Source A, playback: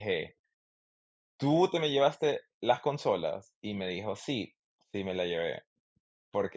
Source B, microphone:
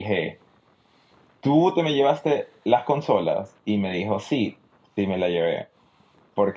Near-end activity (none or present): none